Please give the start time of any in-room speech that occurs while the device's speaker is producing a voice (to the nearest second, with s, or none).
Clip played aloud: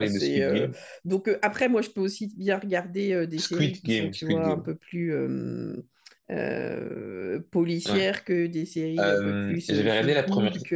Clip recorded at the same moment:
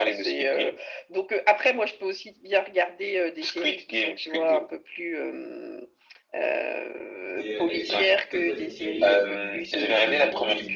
7 s